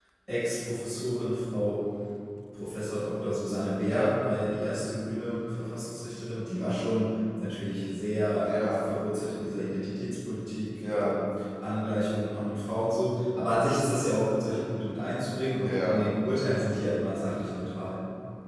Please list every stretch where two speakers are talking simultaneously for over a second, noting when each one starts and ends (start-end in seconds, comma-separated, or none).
none